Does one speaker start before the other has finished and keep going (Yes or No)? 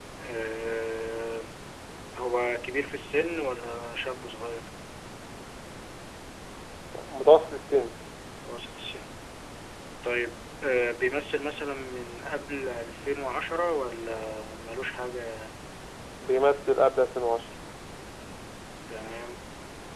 No